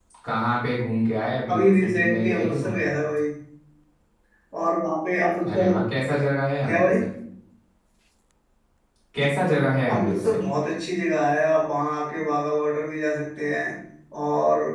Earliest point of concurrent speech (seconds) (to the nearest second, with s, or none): 1 s